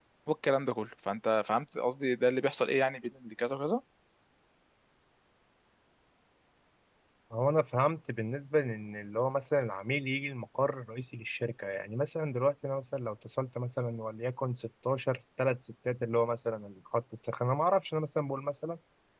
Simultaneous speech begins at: none

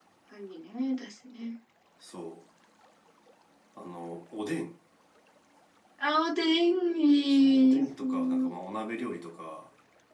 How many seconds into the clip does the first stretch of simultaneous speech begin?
7.1 s

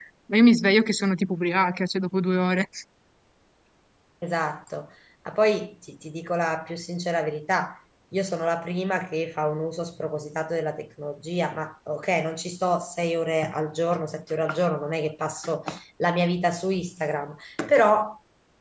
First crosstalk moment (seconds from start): none

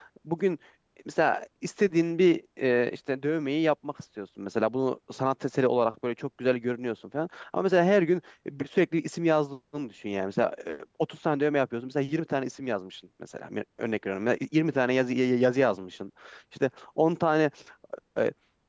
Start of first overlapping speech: none

